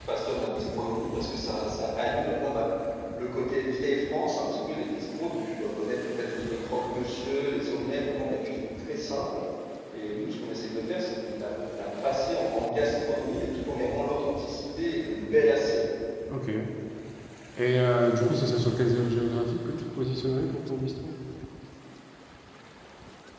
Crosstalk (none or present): none